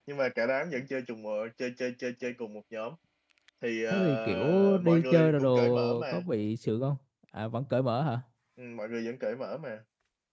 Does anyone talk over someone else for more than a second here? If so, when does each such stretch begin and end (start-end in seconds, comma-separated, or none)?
3.9-6.2